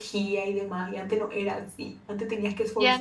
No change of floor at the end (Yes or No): No